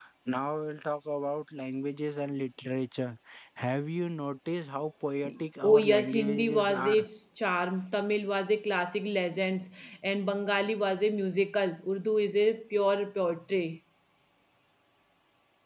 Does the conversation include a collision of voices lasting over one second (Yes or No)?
Yes